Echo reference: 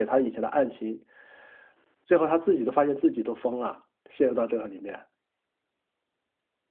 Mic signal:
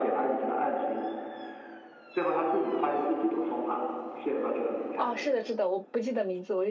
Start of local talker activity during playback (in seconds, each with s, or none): 4.9 s